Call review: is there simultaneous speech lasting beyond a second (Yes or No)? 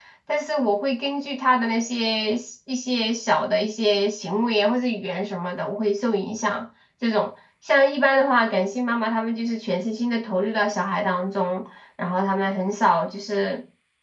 No